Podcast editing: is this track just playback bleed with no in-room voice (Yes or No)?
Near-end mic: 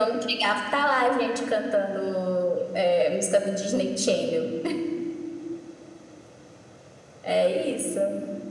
Yes